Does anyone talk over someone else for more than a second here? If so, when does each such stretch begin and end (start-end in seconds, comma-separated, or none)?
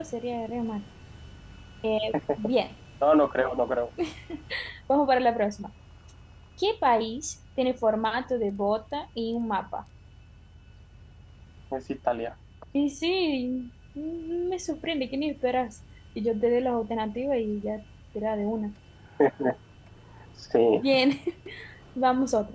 none